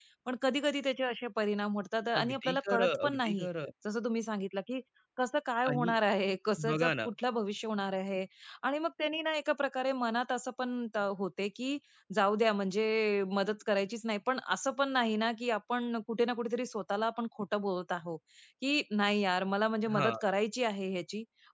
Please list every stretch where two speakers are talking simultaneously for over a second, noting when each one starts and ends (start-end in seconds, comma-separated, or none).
2.2-3.5